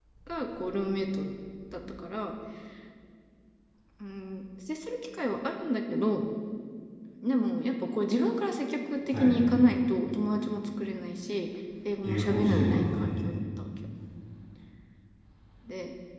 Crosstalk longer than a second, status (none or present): present